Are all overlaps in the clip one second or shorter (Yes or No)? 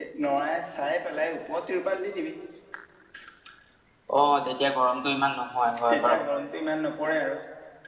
Yes